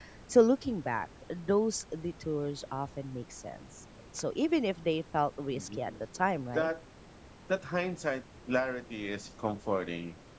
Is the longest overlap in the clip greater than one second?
No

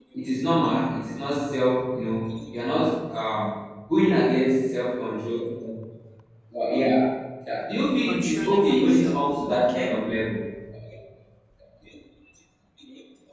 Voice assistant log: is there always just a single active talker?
No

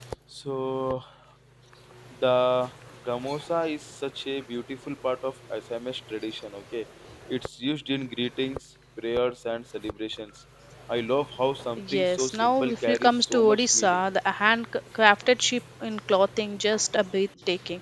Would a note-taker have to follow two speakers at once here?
Yes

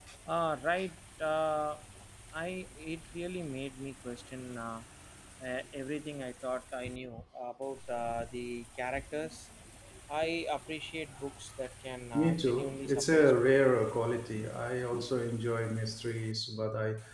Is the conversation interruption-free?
No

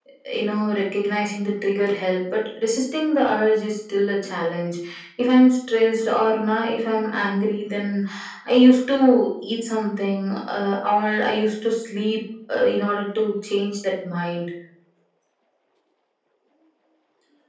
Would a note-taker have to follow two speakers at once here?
No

